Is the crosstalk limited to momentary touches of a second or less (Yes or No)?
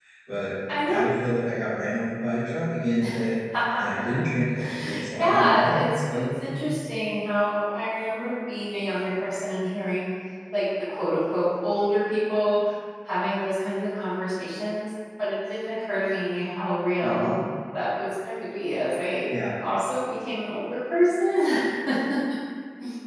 No